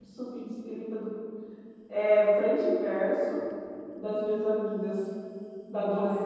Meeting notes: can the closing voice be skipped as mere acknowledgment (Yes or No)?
No